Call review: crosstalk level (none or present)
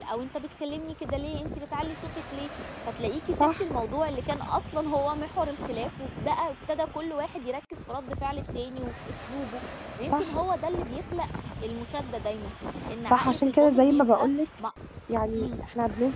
present